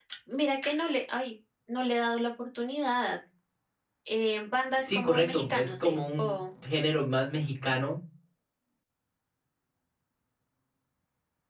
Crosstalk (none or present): present